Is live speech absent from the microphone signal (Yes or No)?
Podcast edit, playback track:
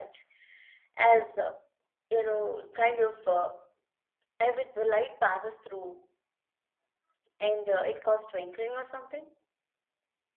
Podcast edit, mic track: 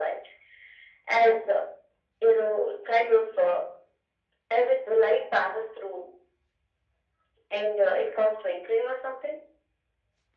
Yes